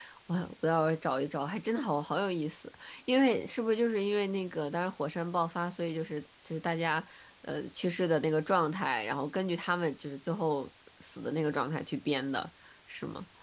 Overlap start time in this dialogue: none

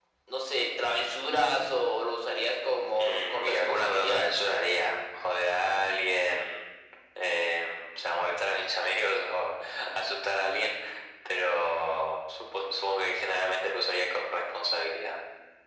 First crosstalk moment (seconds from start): 3.0 s

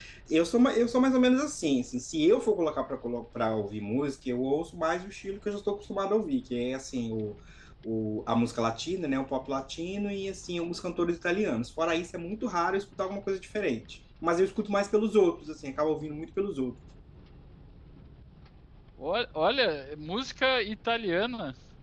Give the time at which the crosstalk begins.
none

